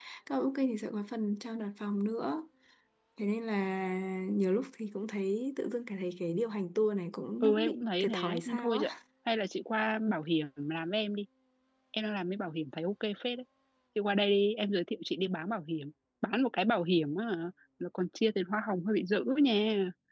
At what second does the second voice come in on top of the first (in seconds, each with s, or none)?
7.4 s